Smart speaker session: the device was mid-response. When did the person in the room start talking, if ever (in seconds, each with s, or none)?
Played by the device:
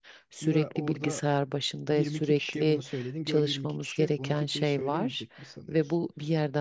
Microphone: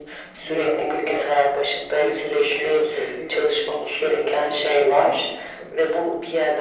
none